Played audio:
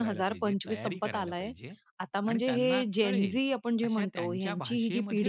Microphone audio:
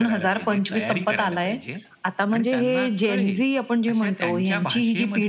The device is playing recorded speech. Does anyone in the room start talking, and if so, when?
none

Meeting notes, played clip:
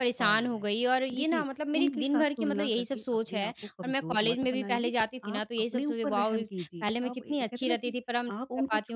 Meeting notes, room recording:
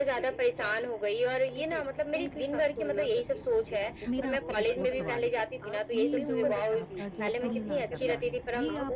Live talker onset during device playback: 4 s

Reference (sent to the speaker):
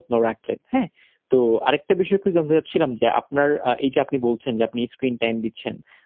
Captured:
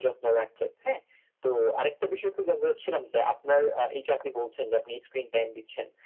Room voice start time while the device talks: none

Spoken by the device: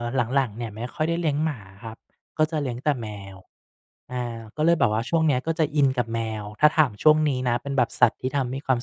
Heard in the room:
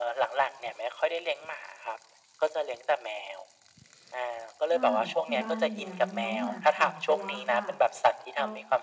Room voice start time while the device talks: 5 s

